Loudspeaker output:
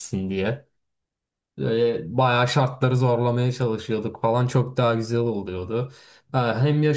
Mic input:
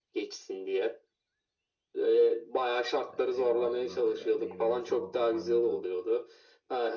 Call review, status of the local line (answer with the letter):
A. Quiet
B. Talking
B